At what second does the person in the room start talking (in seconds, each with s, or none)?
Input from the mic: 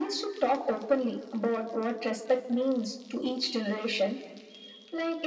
none